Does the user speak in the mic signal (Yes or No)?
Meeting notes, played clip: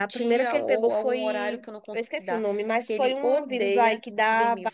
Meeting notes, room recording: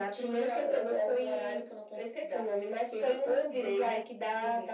No